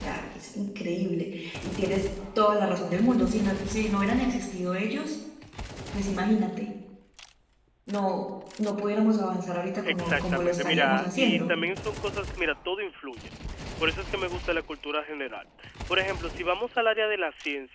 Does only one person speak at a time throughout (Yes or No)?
No